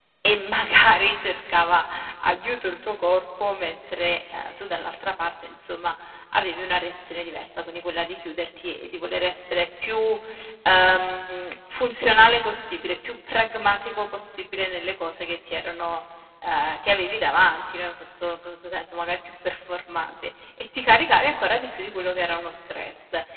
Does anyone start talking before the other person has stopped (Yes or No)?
No